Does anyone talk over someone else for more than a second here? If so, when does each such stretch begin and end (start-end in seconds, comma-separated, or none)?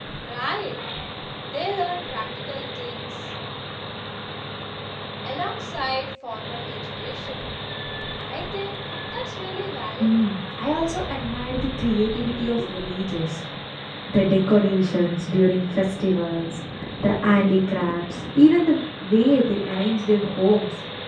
none